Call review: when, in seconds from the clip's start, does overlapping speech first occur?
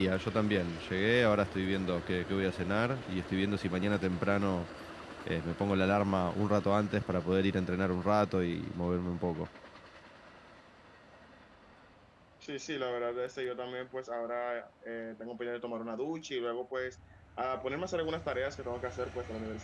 none

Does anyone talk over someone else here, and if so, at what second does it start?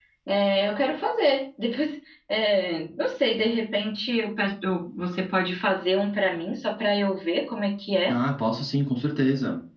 none

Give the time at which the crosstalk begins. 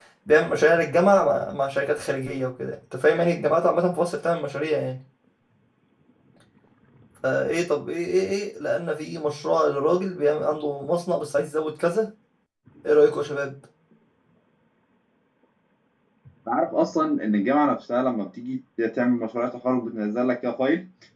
none

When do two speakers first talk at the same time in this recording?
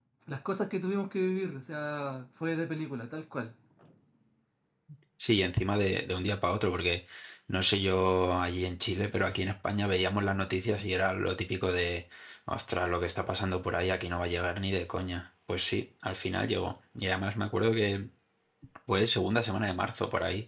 none

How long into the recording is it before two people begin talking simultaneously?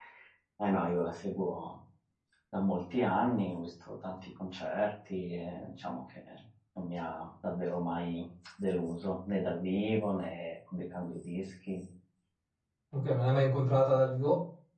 none

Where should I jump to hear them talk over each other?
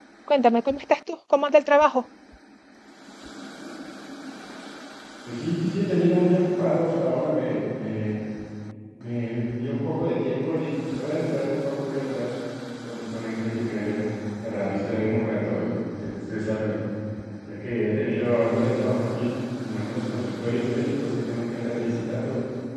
none

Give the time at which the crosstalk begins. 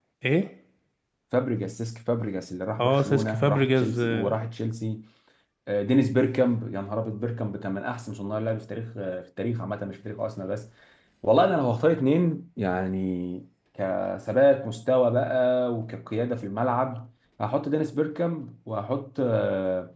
2.8 s

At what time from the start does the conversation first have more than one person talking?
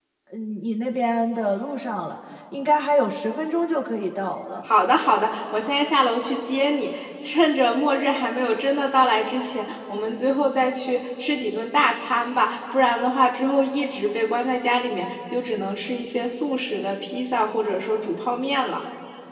none

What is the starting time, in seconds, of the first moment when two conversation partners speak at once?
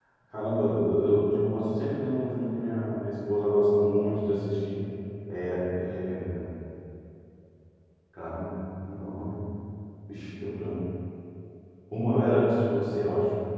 none

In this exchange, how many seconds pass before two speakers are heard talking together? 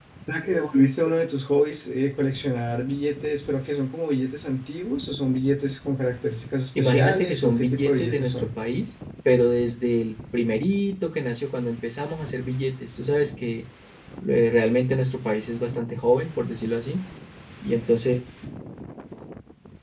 6.8 s

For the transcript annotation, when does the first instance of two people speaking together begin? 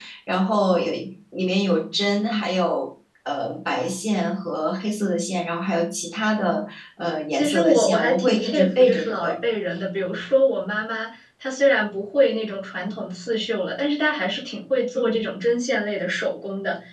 7.3 s

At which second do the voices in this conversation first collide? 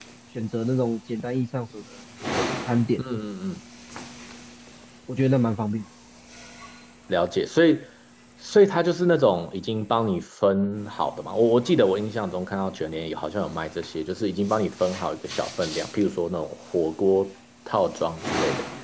none

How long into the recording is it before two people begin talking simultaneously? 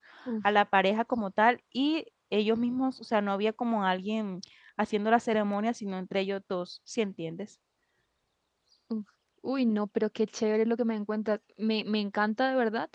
none

